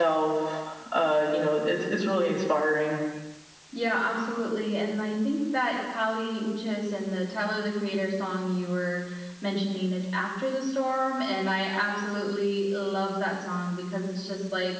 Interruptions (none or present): none